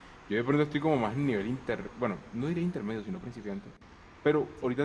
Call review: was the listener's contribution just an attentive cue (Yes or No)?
Yes